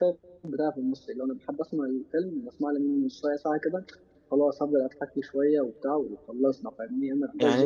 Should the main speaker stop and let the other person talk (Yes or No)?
Yes